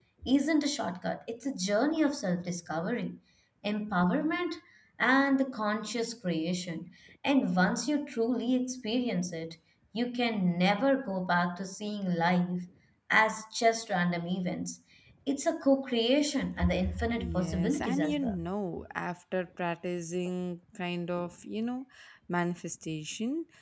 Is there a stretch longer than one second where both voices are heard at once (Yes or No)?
Yes